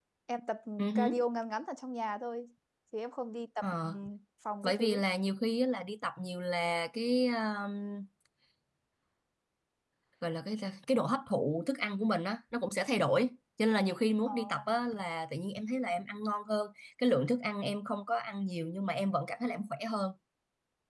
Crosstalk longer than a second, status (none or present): none